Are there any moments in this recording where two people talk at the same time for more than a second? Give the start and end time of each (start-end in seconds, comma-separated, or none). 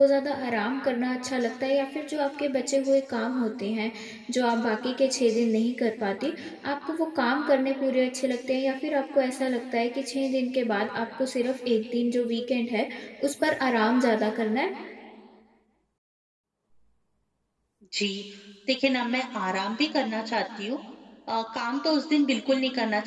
none